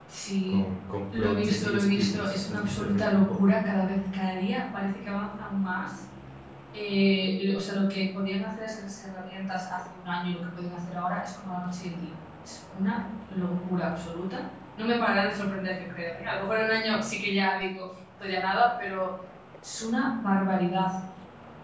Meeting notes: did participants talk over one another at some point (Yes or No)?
Yes